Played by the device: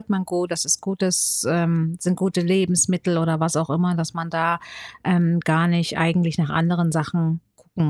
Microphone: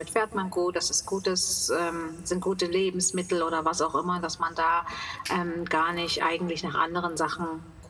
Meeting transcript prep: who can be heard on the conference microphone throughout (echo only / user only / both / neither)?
echo only